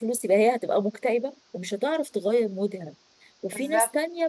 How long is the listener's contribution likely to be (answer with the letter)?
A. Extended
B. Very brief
B